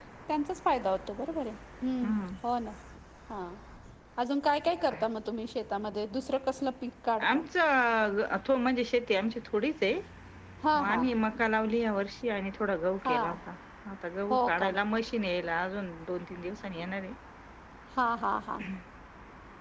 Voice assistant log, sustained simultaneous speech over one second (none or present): none